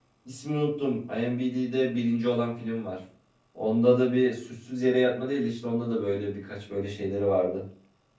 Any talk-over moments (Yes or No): No